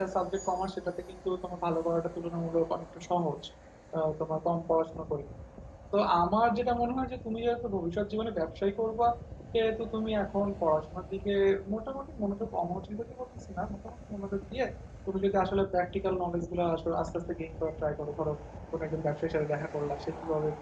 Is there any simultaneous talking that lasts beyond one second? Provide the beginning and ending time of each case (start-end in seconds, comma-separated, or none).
none